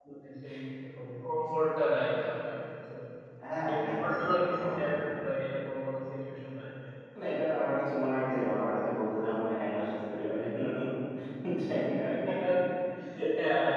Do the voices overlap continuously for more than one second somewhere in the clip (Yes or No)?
Yes